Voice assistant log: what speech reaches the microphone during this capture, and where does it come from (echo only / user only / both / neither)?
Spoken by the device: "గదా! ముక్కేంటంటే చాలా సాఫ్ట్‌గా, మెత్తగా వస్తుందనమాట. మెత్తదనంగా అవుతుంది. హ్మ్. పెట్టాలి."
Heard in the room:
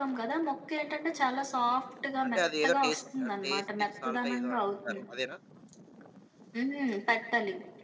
both